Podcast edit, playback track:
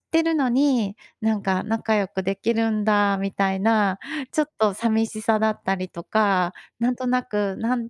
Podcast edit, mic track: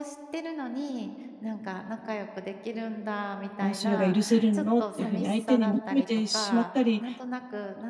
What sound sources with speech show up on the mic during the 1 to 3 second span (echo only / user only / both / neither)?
echo only